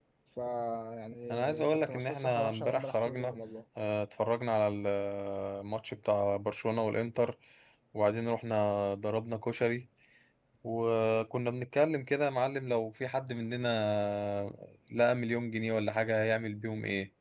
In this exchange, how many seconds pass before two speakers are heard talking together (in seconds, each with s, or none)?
1.3 s